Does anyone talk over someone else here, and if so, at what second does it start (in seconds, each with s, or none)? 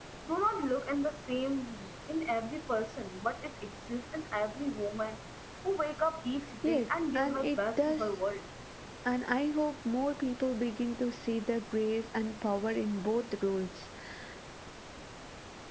6.6 s